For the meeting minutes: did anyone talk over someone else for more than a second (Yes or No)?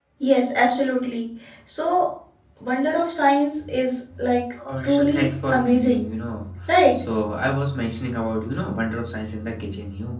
Yes